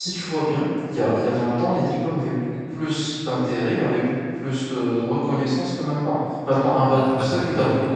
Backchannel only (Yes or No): No